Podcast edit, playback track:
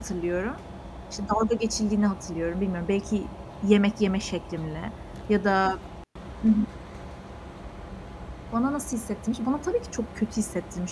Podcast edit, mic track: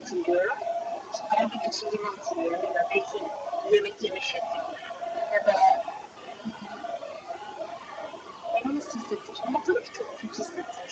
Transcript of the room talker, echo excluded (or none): none